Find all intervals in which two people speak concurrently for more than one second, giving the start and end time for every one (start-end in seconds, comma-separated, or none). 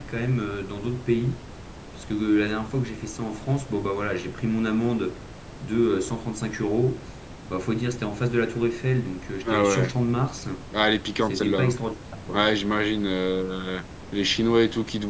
none